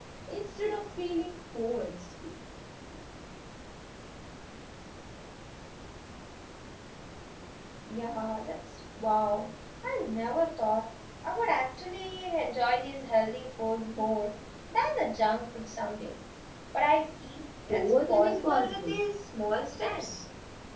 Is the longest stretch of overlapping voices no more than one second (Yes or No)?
No